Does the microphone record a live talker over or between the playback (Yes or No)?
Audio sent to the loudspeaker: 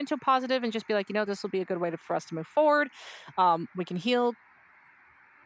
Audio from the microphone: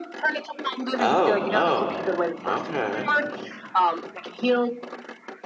Yes